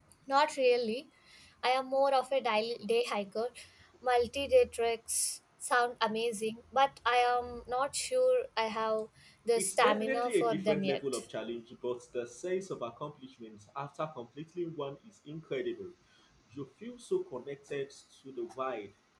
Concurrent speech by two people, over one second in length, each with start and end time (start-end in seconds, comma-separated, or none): 9.6-11.2